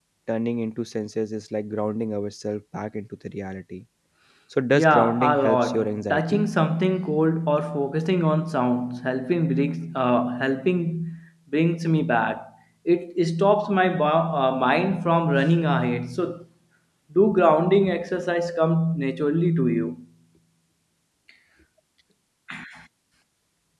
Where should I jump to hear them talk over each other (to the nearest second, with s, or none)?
5 s